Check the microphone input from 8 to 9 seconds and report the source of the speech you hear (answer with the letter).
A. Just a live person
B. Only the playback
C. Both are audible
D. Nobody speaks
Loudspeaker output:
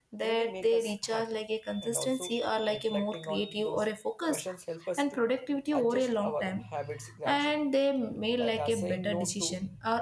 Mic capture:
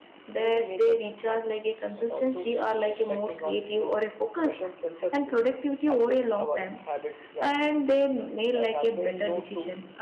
B